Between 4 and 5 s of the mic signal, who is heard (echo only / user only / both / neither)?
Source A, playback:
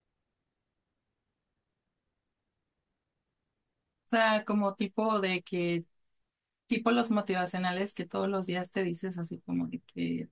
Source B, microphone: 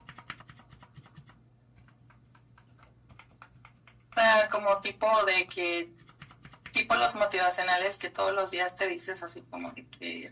echo only